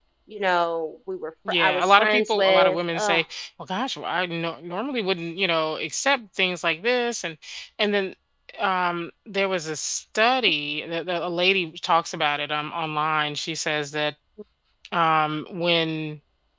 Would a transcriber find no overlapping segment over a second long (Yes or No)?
No